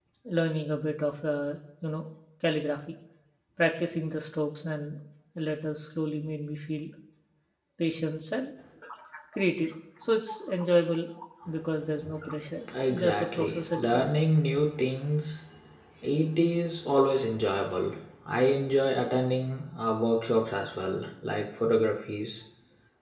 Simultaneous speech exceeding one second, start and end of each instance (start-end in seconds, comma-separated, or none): 12.7-14.1